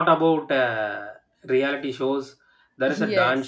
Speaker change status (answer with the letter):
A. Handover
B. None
B